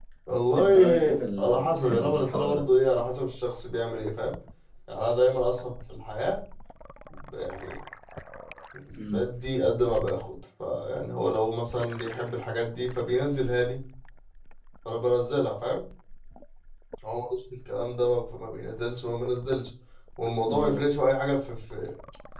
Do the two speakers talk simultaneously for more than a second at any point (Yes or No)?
Yes